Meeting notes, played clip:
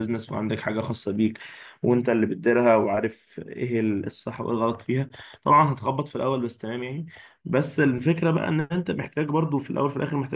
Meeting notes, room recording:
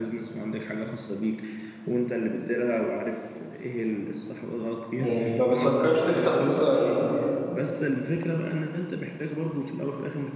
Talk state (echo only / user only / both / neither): both